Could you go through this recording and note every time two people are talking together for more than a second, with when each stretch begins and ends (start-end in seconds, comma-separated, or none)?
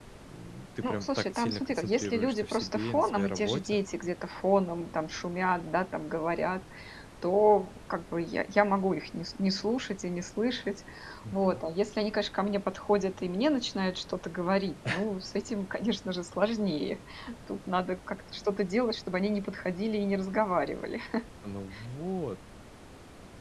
0.8-3.8